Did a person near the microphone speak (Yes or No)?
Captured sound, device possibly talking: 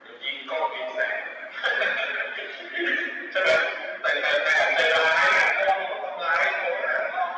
No